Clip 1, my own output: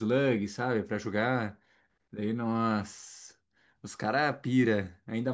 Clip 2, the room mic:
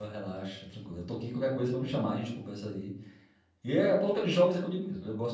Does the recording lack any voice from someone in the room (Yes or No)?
No